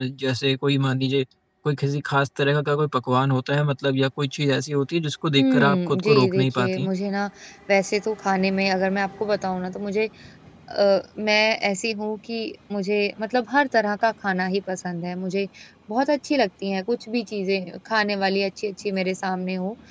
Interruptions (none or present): present